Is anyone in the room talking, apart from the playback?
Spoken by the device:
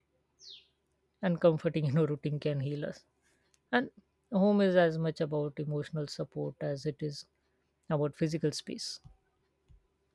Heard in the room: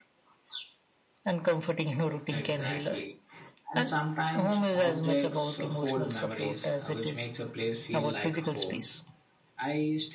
Yes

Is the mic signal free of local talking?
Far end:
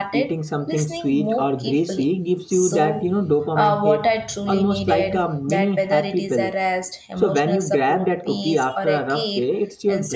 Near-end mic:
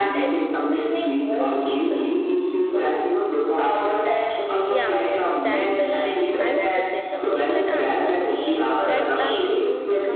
No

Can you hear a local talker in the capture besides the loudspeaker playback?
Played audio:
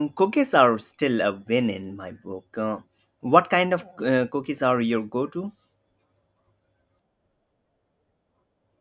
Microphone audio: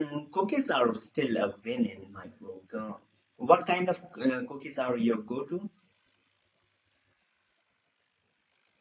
No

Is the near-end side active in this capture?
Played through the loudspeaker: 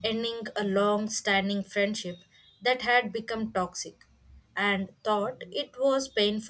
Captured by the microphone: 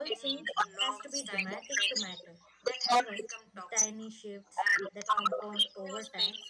Yes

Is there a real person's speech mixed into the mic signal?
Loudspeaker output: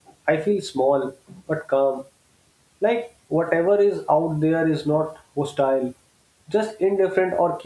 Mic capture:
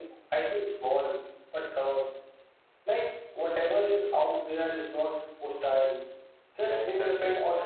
Yes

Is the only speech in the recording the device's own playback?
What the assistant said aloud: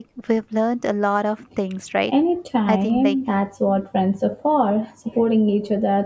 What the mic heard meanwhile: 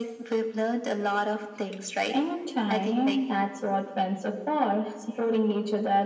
Yes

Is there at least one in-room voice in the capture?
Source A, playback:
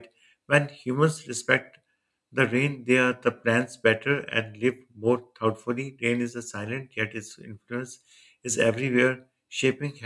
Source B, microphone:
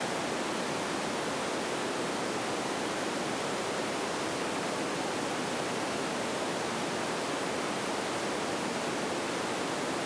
No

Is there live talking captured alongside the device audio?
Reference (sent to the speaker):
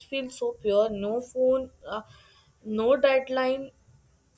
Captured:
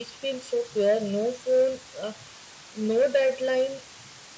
No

